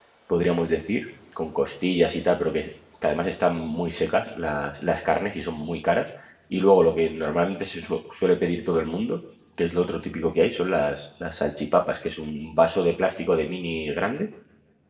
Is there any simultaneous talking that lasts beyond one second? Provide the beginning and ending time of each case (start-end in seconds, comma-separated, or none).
none